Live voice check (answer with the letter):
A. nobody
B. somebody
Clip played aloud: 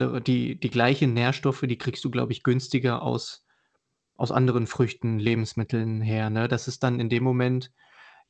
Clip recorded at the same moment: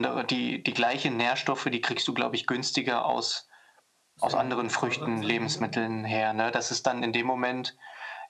B